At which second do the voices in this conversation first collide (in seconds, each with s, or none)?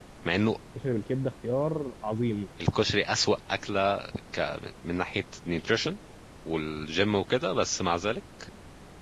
none